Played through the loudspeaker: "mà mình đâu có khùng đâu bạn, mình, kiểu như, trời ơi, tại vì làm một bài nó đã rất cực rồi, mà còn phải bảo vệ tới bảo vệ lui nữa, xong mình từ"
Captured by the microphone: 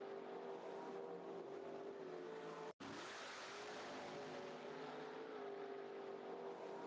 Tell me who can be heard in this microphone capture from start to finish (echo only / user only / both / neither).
neither